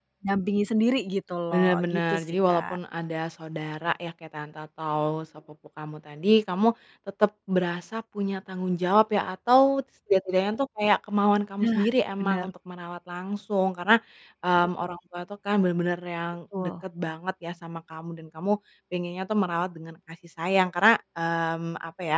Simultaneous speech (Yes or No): Yes